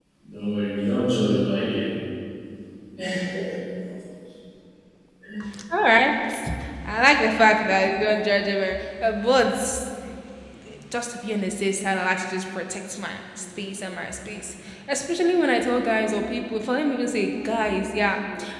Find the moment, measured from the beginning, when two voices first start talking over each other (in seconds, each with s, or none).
none